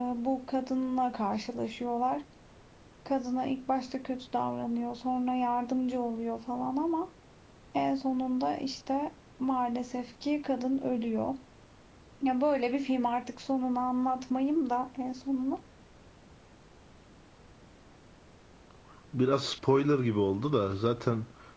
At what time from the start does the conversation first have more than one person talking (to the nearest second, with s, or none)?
none